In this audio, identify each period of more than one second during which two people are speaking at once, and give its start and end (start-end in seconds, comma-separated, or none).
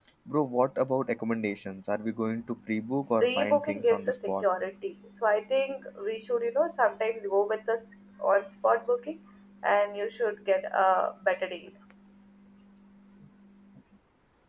3.2-4.4